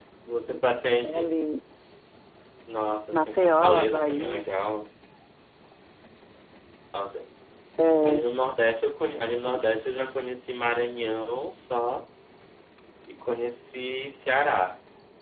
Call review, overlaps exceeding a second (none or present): present